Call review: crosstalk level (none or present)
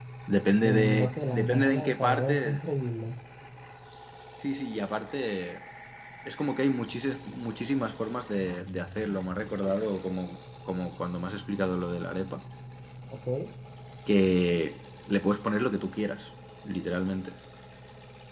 present